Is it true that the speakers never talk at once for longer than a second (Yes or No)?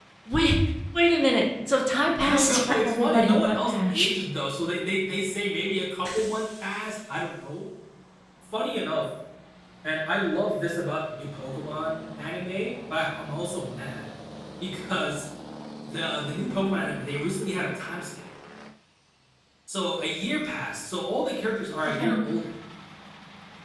No